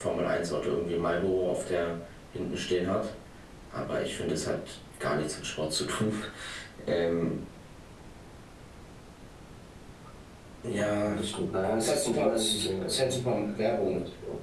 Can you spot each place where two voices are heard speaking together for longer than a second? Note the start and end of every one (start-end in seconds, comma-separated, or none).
11.8-13.2